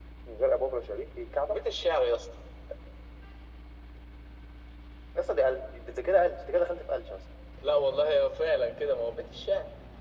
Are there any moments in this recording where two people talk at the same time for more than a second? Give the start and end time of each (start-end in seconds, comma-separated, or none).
none